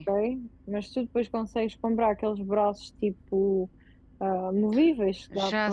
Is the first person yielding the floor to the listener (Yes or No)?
Yes